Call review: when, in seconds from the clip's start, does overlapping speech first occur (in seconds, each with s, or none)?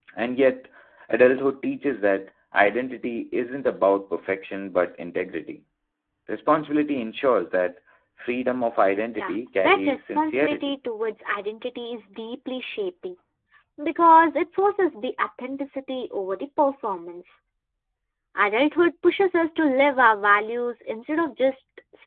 9.2 s